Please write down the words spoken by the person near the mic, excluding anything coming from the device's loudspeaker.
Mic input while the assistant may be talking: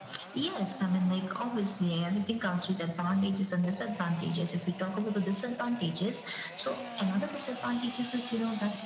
none

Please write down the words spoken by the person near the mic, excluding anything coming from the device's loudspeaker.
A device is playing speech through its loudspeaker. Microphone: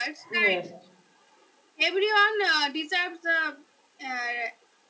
yes

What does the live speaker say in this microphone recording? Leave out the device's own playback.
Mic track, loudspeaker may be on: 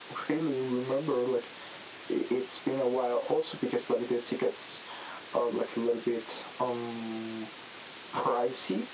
none

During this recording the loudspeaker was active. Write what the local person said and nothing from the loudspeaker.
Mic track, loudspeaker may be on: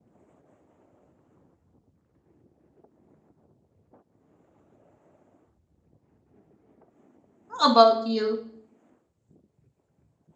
How about you?

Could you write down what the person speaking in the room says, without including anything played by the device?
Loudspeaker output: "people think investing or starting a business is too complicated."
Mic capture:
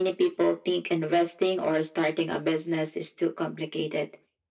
none

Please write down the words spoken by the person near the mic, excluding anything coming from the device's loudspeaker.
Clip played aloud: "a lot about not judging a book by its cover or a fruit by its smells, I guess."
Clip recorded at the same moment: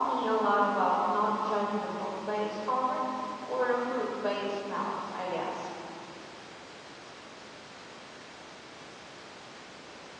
none

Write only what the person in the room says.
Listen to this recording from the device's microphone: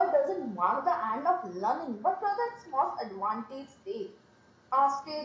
none

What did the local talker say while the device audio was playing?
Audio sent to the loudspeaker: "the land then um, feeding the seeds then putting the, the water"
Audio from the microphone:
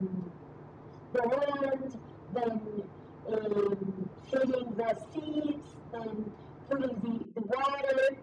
none

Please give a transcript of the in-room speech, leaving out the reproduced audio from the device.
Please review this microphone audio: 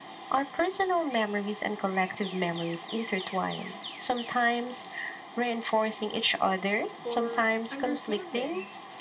or understanding.

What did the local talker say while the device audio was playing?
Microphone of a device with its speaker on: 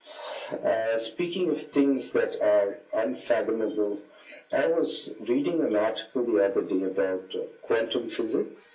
none

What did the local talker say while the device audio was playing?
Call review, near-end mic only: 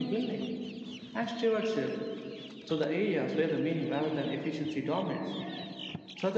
none

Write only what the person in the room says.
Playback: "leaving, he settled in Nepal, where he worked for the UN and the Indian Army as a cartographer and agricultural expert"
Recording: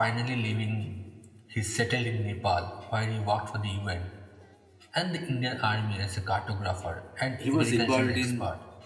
he was involved in

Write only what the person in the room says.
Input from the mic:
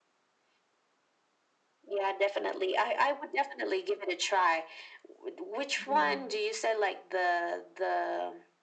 Yeah.

